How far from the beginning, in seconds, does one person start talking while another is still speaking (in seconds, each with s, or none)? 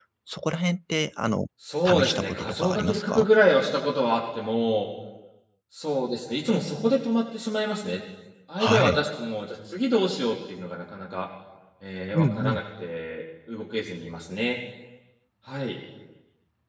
1.9 s